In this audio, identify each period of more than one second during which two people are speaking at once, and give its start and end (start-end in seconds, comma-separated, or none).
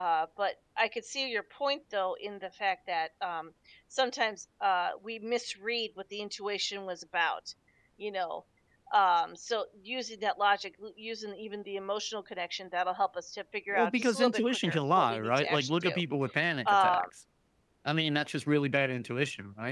13.7-16.0